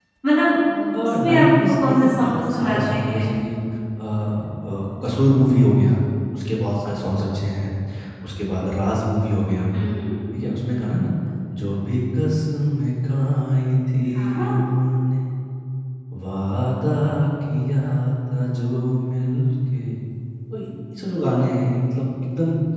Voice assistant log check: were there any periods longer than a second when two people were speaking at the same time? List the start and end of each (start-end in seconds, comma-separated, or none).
1.2-3.3